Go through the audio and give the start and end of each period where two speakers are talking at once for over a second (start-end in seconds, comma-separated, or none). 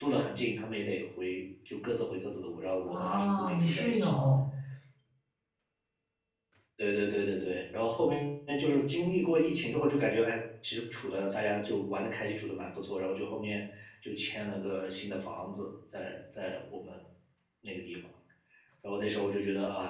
2.8-4.2